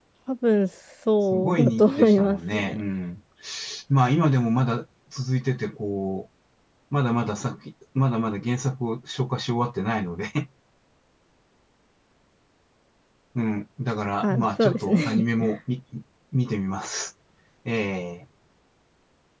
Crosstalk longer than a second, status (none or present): present